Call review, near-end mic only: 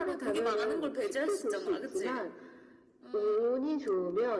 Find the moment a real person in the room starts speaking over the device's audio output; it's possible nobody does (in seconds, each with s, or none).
none